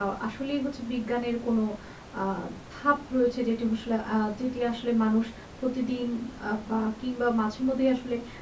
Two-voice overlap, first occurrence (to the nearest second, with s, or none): none